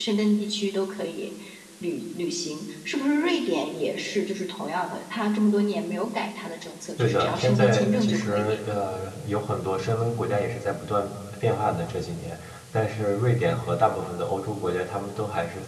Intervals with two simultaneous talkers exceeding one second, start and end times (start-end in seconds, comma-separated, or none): 7.0-8.6